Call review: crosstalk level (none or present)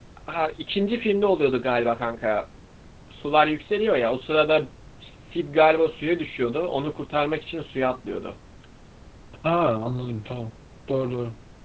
none